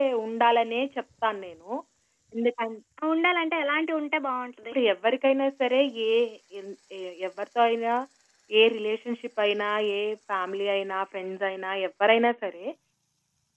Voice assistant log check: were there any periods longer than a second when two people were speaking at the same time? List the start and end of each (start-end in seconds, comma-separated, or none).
none